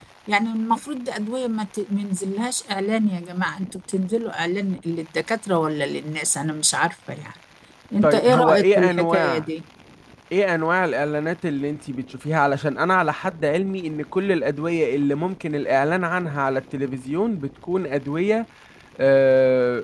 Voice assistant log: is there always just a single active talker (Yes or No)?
No